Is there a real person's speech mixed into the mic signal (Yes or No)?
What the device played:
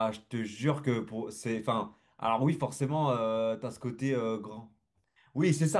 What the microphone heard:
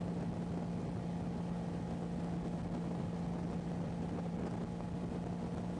No